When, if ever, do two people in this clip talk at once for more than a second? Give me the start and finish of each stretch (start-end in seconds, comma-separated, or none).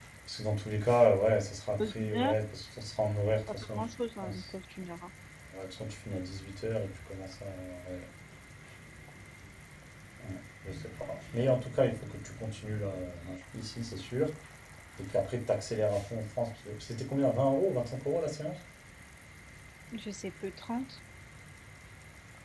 none